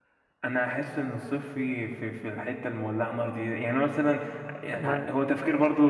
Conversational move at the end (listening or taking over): listening